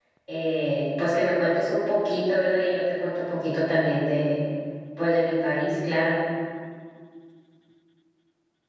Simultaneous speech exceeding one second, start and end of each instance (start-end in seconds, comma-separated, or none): none